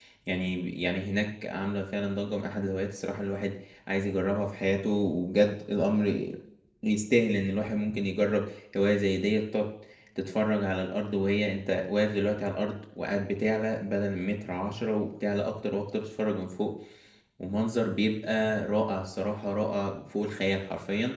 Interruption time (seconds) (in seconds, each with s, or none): none